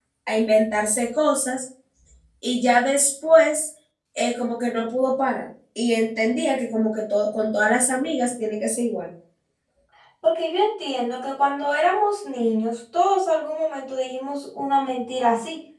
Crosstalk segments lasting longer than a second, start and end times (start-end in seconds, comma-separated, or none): none